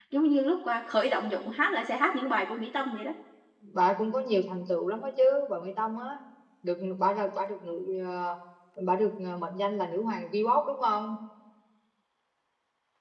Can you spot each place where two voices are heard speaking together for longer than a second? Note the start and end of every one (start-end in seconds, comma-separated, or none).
none